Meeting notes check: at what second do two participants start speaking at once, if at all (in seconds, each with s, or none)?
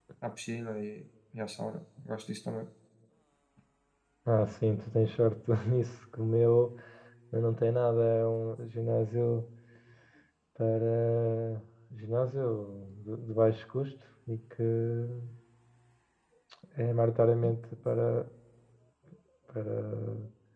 none